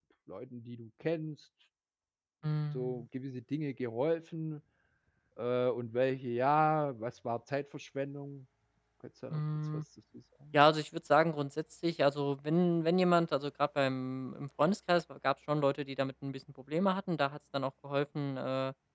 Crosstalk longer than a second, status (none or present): none